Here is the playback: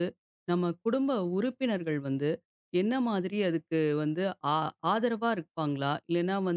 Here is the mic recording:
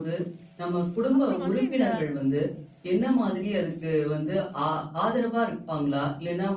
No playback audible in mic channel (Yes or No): No